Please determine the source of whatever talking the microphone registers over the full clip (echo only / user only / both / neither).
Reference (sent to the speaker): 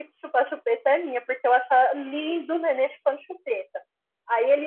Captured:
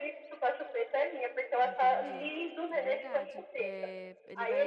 both